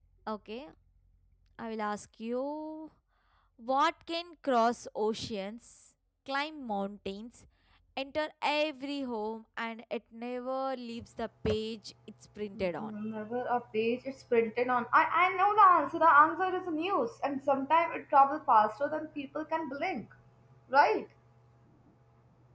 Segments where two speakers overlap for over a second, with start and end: none

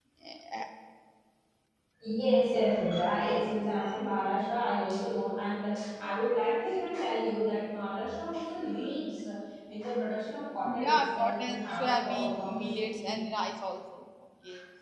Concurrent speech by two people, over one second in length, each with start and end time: 10.6-13.2

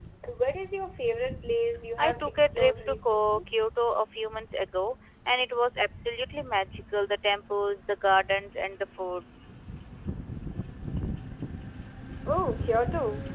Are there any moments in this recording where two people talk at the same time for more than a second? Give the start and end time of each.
2.0-3.4

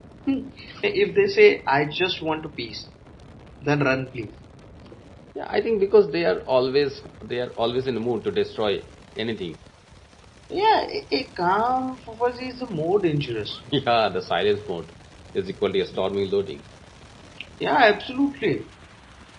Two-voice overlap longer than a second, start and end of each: none

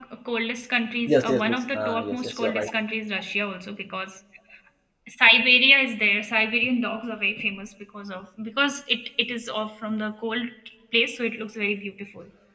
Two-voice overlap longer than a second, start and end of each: 1.1-2.7

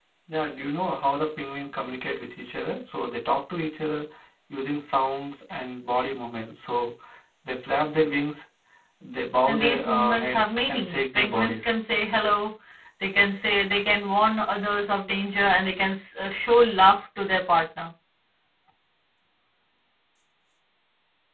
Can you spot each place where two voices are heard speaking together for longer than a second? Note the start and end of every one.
9.4-11.7

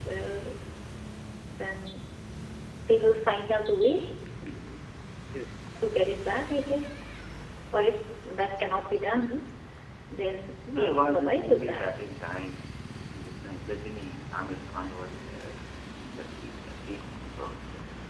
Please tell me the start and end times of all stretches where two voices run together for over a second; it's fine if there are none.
10.2-11.9

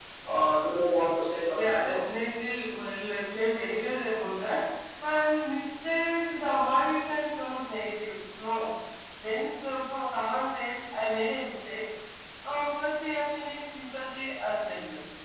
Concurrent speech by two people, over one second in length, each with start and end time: none

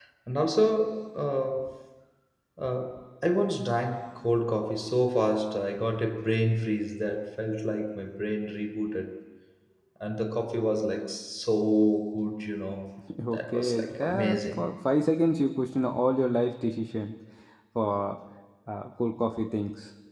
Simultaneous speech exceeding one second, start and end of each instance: 13.3-14.6

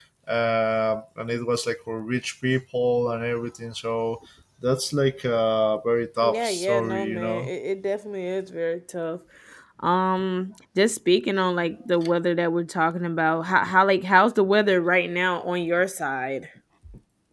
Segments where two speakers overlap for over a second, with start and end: 6.2-7.5

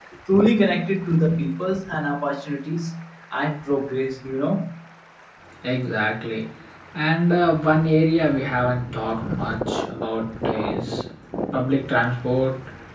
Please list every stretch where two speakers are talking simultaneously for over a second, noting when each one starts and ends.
none

